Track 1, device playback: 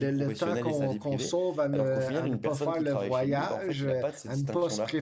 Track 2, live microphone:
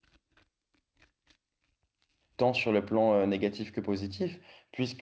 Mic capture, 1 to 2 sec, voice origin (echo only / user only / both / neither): neither